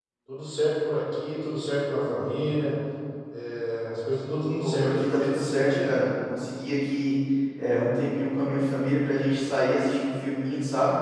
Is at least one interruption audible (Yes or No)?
Yes